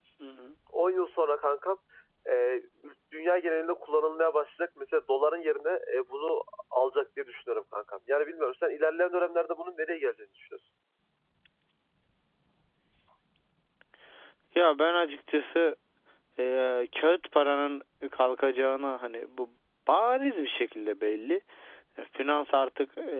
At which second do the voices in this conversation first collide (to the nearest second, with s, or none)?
none